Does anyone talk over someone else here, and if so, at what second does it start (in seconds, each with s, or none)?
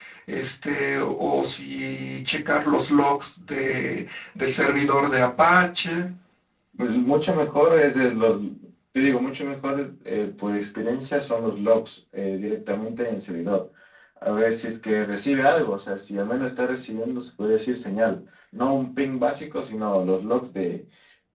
none